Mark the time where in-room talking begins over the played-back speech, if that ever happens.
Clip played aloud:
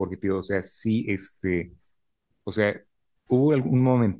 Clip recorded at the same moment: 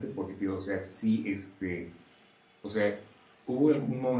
none

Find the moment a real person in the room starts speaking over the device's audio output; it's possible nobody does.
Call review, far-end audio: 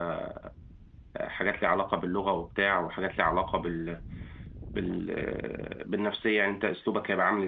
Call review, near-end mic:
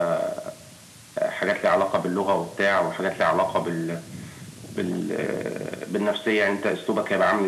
none

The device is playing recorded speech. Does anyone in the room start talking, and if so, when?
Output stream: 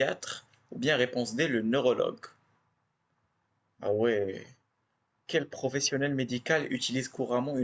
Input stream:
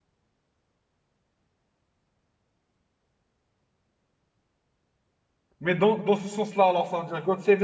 6 s

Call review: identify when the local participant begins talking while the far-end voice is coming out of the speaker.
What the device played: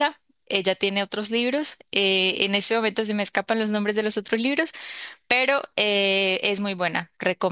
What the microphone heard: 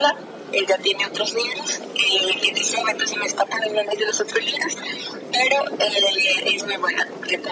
none

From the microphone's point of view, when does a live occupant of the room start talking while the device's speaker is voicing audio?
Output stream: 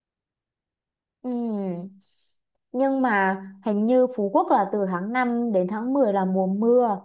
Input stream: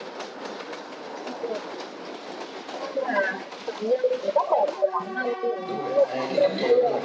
6 s

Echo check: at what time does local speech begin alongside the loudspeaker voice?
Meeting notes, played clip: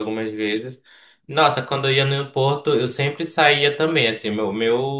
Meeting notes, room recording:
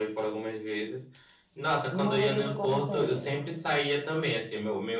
2 s

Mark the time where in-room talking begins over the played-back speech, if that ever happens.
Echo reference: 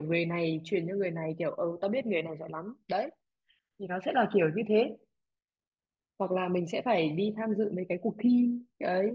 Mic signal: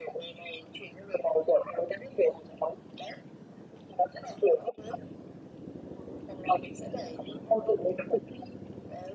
none

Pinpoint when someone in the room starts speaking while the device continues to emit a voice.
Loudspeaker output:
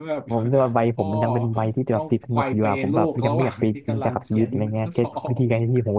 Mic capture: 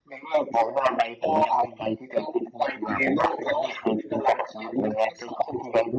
none

